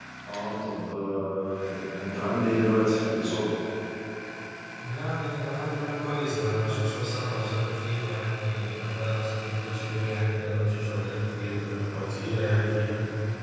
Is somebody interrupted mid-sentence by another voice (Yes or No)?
No